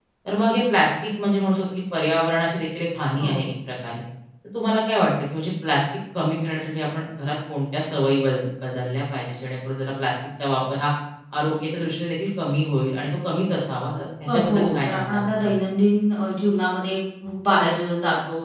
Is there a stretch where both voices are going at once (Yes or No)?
Yes